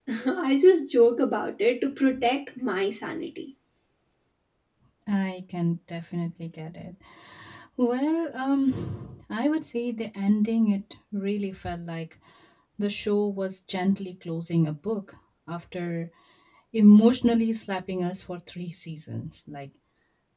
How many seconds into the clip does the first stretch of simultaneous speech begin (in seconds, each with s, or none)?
none